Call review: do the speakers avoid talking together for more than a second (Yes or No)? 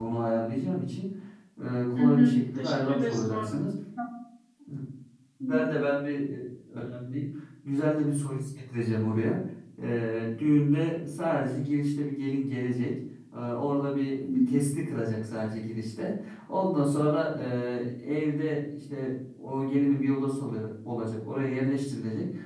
No